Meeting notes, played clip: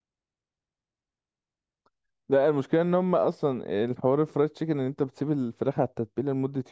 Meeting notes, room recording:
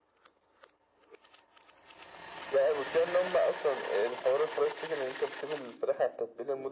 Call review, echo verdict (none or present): present